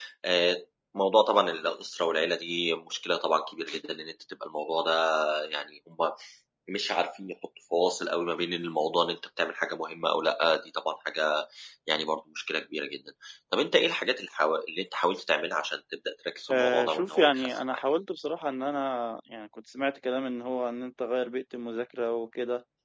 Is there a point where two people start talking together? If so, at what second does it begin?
16.5 s

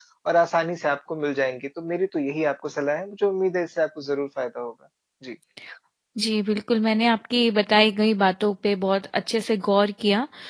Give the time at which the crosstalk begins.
none

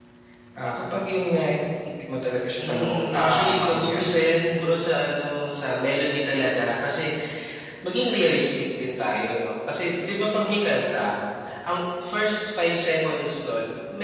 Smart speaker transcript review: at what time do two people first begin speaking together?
2.6 s

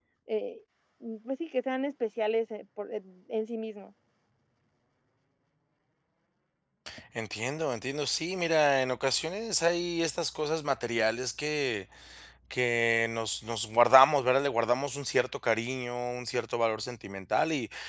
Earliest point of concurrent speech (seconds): none

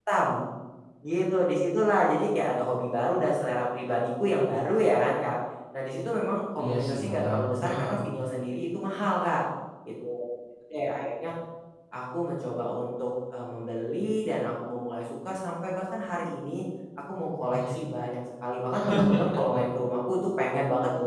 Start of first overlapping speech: 6.6 s

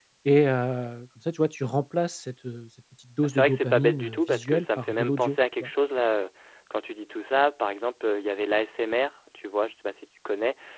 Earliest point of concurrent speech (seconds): 3.2 s

